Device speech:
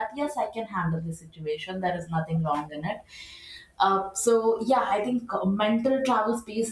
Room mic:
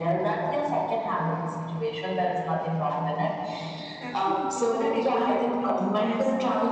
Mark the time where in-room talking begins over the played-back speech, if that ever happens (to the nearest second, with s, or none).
4 s